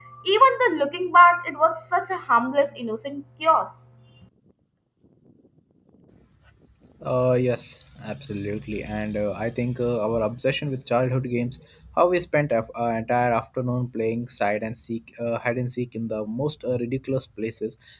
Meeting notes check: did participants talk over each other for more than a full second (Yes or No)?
No